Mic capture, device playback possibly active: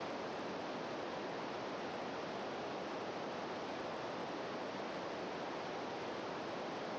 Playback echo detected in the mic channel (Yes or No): No